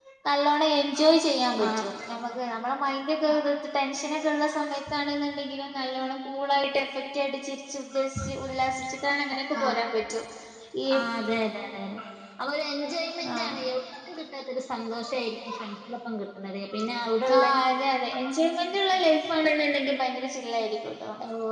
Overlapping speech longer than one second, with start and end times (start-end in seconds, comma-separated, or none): none